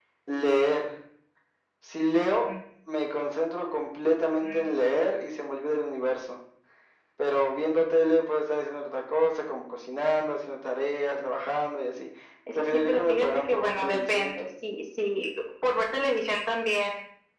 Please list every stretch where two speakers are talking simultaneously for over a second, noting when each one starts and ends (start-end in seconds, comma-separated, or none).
12.6-14.5